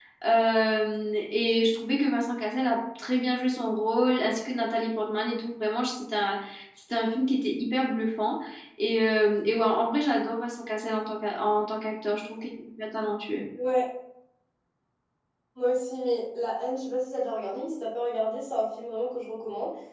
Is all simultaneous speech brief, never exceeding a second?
Yes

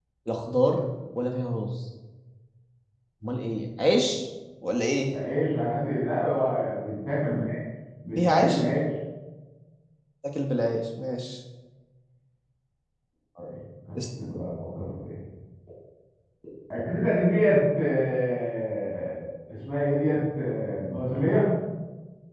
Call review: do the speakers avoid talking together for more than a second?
Yes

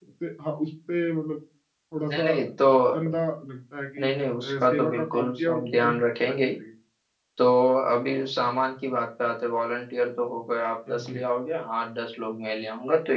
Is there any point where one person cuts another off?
Yes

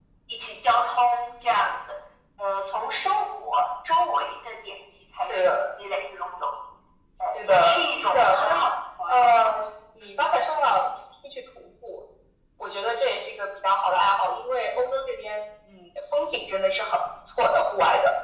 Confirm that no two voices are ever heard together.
No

